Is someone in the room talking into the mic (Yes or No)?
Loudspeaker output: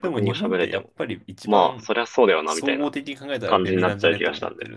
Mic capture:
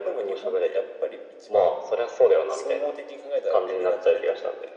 No